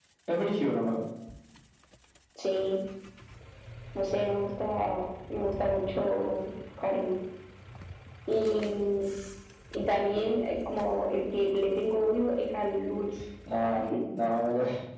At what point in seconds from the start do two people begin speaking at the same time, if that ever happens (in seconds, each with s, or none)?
none